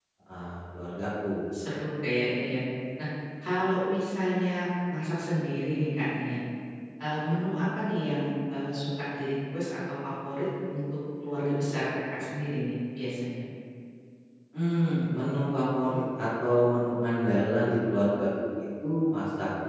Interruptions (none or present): none